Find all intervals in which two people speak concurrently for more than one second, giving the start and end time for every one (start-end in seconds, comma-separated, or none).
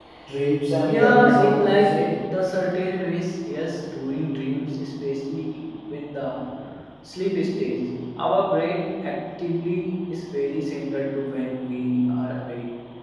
0.9-2.1